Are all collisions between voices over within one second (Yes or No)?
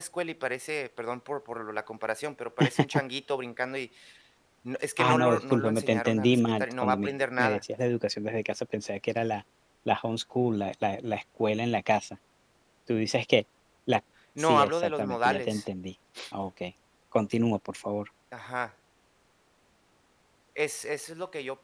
No